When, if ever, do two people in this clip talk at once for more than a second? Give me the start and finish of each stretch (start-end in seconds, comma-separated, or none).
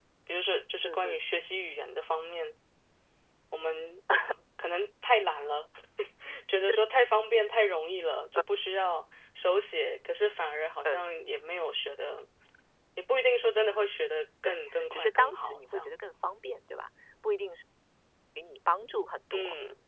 14.4-15.9